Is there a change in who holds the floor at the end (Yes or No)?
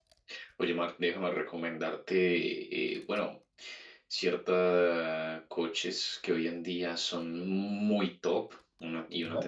No